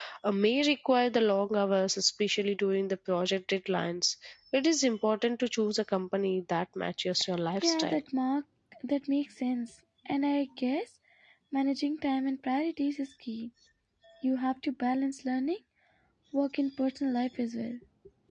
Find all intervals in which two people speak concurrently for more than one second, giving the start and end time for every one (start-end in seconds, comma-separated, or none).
none